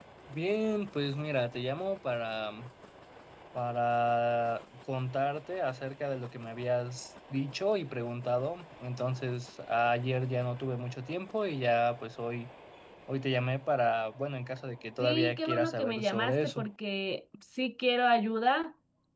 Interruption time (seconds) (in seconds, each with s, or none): 15.0 s